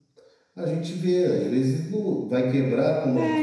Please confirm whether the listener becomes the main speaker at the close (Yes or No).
Yes